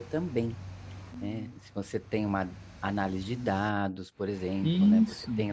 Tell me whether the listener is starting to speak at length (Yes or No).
No